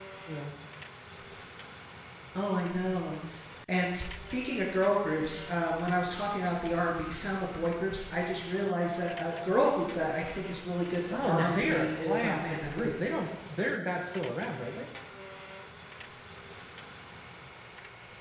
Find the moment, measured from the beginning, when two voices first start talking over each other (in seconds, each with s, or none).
11.1 s